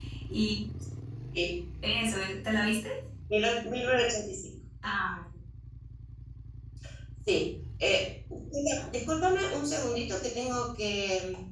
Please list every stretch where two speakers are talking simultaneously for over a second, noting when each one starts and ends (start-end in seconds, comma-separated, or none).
none